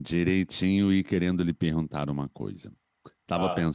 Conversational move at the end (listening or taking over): listening